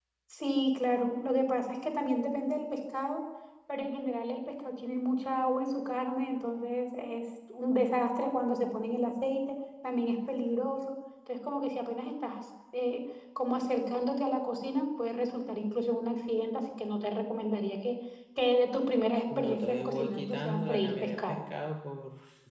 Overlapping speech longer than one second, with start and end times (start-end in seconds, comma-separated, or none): 19.4-21.4